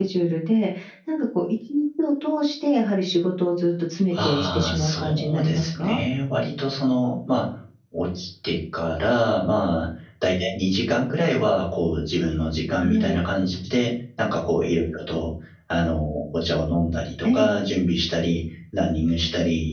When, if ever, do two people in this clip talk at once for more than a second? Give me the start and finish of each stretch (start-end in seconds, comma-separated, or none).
4.1-6.0